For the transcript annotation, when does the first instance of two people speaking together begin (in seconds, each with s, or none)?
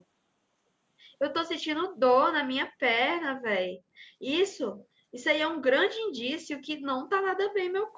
none